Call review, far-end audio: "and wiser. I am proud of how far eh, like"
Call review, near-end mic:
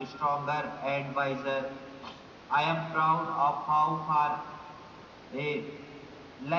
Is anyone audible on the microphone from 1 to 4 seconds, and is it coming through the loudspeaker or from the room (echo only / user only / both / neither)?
echo only